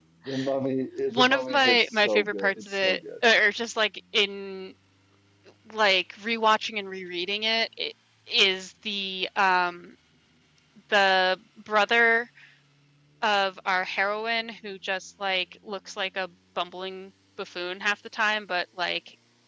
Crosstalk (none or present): present